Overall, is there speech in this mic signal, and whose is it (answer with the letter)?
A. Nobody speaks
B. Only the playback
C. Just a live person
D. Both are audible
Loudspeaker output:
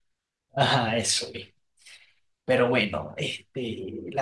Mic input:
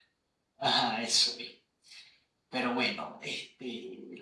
B